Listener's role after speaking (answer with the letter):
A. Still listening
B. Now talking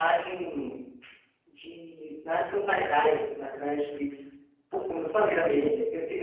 A